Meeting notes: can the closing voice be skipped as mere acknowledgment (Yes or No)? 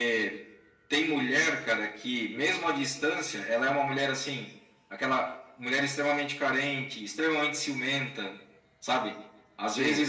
Yes